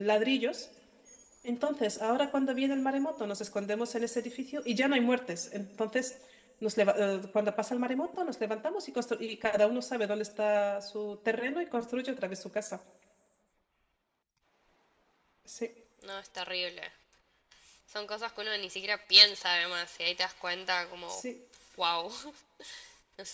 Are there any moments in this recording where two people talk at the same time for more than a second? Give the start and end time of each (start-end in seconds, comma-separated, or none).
none